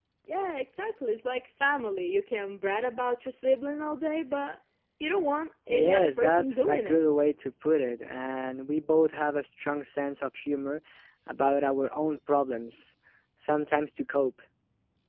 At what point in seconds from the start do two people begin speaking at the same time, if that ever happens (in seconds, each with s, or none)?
5.7 s